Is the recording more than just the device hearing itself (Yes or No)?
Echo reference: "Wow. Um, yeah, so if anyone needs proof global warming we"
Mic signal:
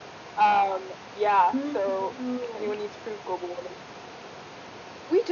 Yes